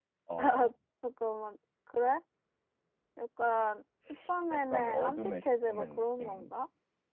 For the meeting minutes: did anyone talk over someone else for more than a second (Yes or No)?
Yes